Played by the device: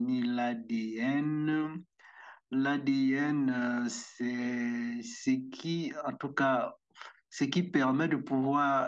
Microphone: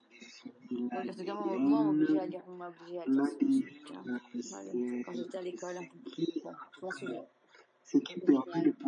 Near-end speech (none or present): present